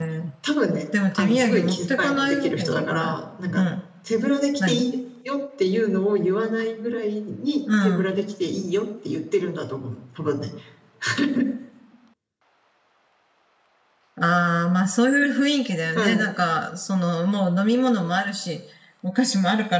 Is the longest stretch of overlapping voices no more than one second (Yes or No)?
No